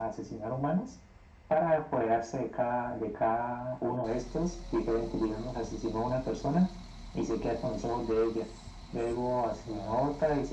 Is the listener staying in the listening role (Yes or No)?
Yes